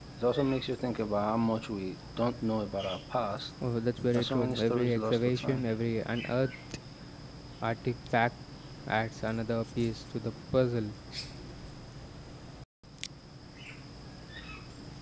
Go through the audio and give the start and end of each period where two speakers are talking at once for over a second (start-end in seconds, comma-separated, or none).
4.1-5.6